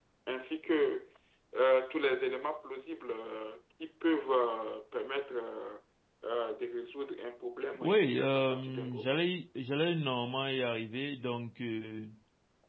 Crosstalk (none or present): present